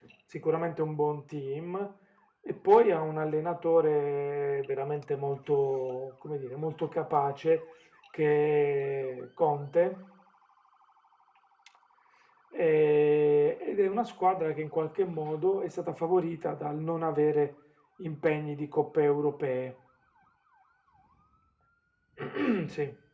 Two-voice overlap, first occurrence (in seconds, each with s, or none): none